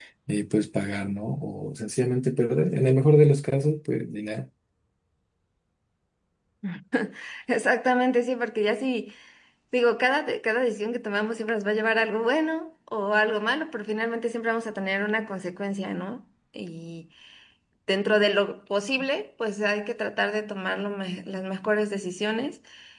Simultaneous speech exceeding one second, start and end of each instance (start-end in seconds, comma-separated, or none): none